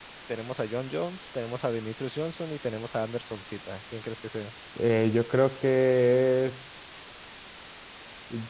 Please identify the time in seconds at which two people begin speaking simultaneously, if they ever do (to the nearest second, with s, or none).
none